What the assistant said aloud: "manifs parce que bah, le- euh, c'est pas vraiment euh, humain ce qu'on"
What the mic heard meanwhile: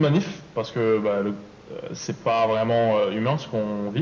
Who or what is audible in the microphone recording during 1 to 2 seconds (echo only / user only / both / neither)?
echo only